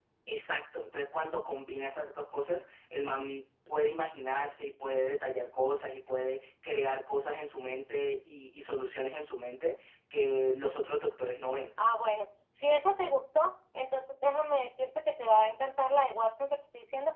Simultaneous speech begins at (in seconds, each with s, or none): none